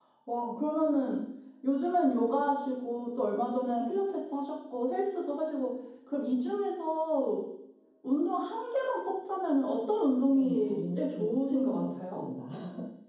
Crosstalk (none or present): present